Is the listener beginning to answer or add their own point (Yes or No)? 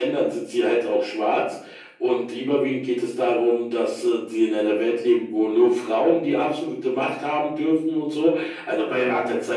No